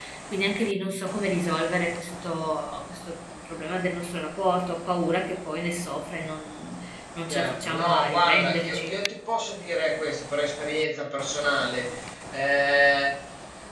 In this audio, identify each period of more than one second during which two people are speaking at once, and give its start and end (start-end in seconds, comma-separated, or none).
7.3-9.0